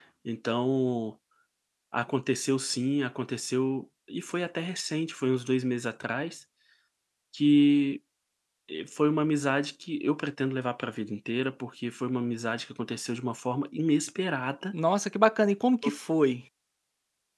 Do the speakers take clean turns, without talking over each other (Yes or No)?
Yes